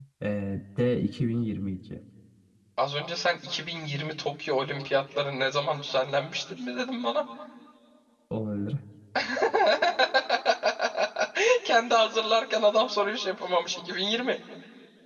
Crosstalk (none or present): none